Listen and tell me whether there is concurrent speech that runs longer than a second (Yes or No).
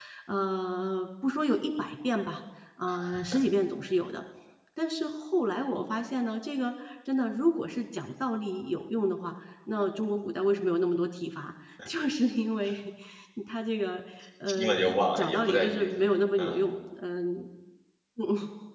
Yes